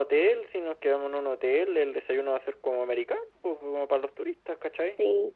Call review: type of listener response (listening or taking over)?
listening